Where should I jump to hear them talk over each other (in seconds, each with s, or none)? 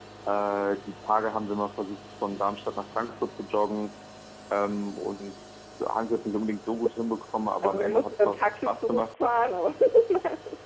7.6 s